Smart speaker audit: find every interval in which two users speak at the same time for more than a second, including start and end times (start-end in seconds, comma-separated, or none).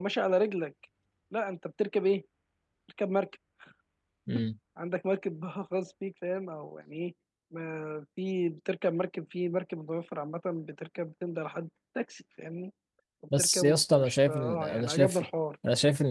13.4-15.2